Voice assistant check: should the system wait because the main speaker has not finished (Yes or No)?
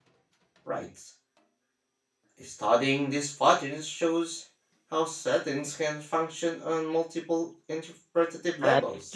No